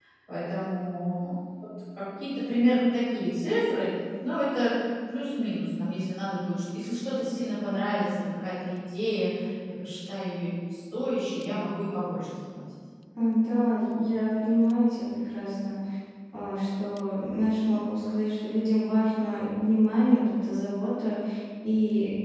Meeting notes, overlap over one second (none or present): none